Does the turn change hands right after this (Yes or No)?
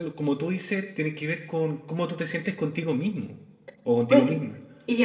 Yes